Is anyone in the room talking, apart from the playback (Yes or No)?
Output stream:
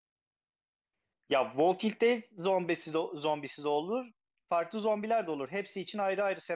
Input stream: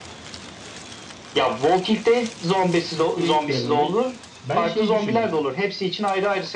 Yes